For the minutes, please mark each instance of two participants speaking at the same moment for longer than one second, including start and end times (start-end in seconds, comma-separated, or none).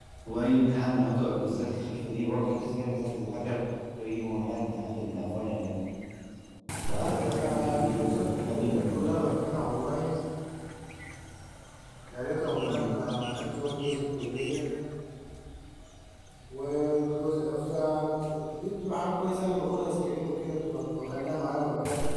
6.9-9.0